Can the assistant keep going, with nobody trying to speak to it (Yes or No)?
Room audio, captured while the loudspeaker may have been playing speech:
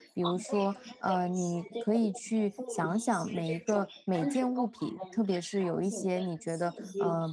No